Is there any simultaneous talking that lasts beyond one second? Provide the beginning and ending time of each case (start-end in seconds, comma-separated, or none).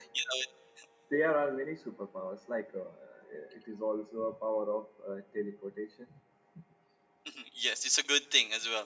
none